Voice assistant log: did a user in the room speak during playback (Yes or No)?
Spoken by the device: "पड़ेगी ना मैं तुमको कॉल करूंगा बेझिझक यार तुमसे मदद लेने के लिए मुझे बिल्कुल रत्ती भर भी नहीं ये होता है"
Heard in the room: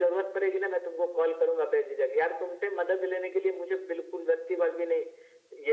No